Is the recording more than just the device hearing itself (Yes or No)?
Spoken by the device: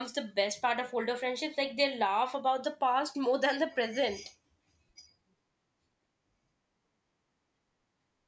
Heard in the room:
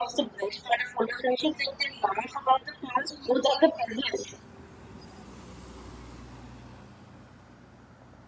No